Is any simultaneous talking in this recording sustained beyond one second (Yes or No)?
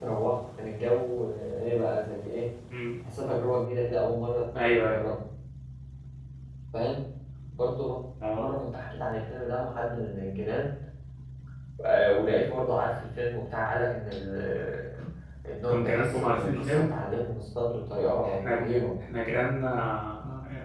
Yes